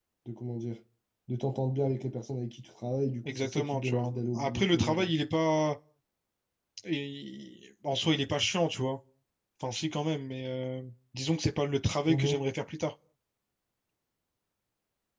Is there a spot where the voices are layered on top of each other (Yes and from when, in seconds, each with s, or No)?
Yes, from 3.2 s